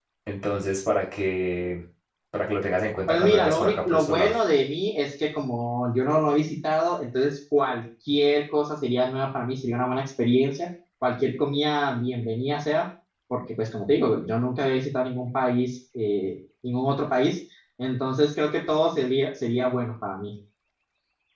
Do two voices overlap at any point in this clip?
Yes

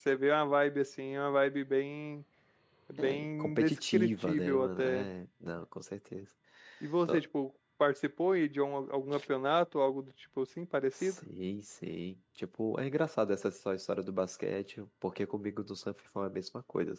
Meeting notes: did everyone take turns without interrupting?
No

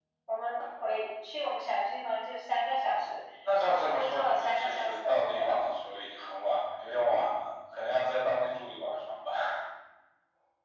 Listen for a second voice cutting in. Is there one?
Yes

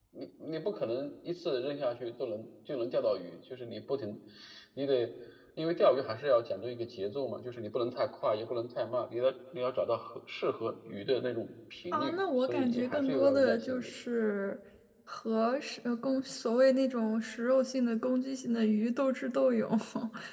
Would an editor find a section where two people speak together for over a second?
Yes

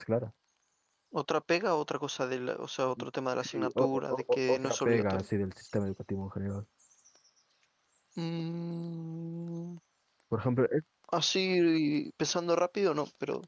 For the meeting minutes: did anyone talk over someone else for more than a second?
Yes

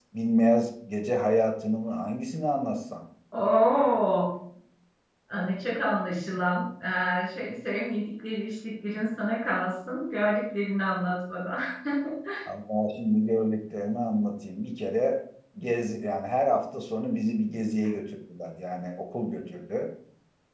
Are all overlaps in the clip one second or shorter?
Yes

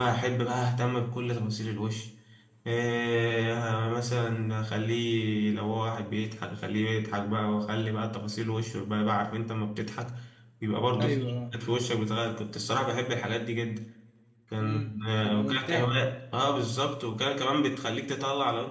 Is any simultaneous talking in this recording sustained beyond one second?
Yes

